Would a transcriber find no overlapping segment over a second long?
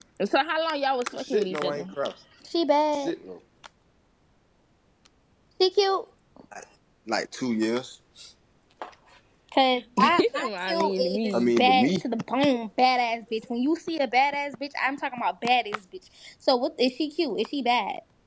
No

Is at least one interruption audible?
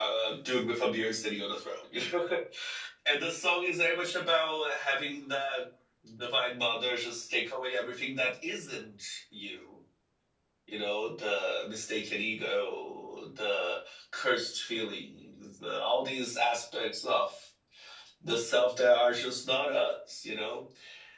No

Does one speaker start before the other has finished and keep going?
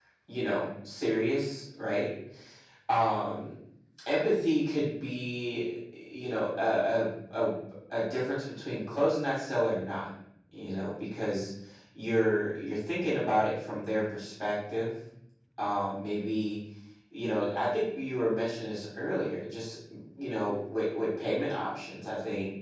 No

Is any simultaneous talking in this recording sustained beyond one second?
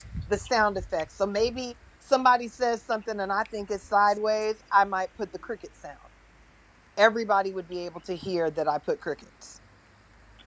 No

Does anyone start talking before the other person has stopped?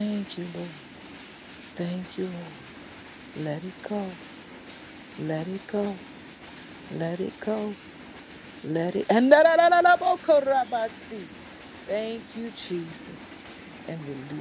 No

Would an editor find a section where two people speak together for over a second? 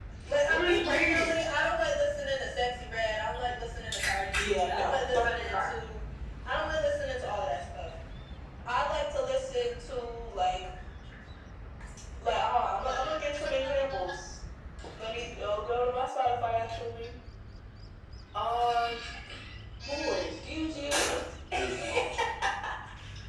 Yes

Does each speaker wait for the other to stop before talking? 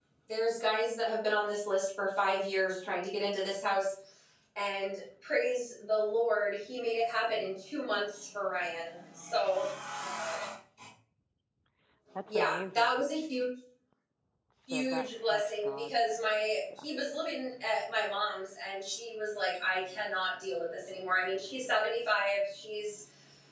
No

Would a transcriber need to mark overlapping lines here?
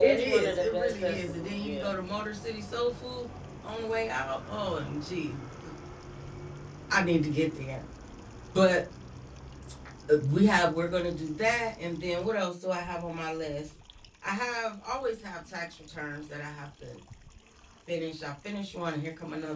Yes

